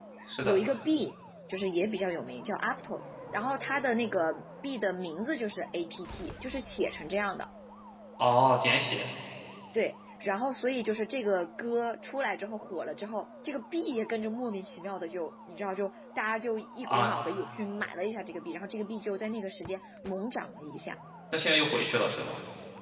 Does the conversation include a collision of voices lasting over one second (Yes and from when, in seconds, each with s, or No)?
No